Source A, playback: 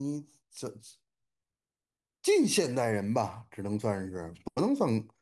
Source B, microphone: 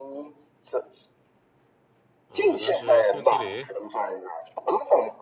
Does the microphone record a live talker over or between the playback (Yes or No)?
Yes